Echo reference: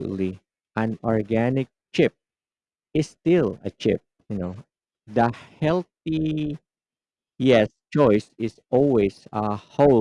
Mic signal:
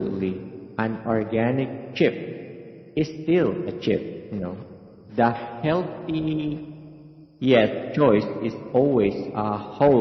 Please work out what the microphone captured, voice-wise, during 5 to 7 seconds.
echo only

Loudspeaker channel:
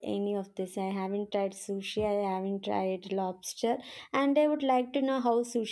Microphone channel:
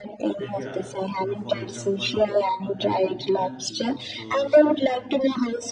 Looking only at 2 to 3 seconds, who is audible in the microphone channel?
both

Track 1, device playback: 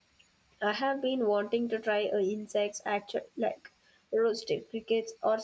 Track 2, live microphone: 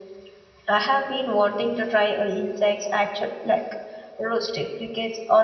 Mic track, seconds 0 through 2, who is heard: echo only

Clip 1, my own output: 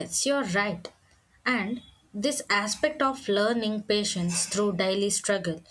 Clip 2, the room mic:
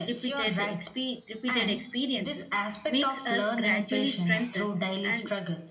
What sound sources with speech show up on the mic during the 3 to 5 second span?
both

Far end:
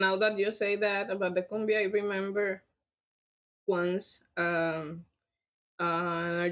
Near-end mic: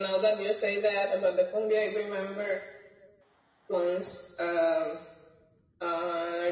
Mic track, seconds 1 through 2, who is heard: echo only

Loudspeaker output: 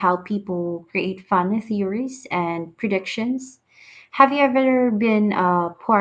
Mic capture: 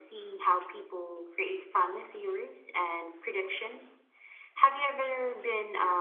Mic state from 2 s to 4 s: echo only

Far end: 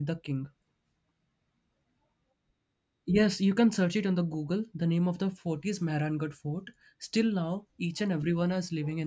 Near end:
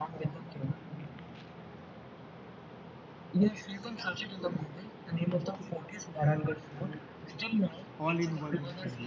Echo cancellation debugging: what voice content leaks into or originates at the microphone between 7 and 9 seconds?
both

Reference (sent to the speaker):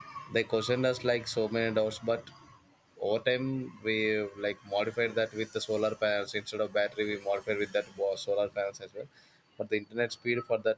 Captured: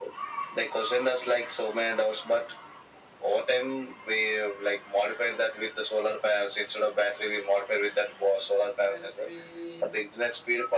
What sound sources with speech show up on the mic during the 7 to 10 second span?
both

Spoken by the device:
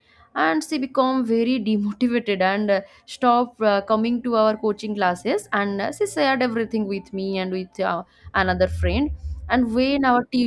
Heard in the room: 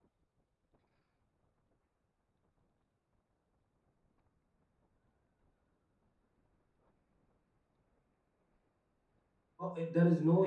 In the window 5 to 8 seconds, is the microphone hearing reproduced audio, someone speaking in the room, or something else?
neither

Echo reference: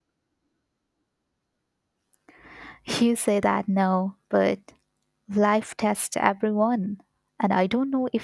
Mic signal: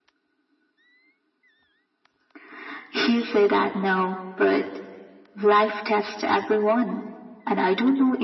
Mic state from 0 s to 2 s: neither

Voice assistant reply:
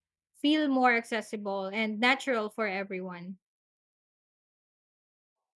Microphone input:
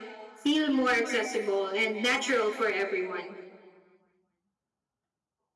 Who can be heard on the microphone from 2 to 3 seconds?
echo only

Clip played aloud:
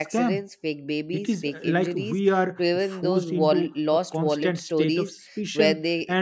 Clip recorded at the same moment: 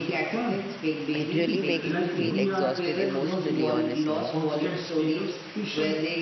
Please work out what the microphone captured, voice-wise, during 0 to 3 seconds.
both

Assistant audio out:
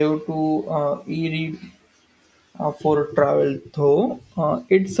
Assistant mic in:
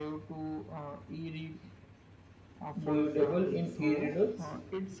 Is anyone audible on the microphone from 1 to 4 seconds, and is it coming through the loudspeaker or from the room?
both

